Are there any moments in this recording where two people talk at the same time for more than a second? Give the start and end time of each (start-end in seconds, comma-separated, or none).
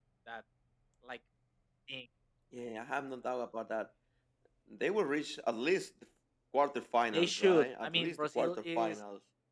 7.1-9.0